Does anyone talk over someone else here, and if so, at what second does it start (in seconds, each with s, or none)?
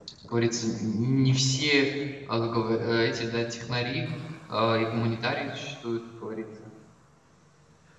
none